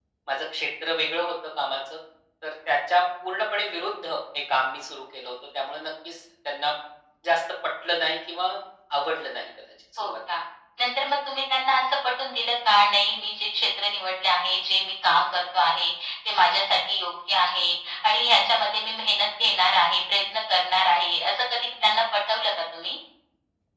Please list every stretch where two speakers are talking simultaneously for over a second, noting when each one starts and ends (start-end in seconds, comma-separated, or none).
none